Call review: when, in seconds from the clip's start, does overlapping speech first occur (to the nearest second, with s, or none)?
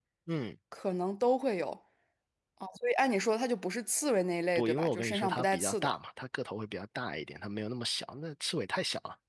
5 s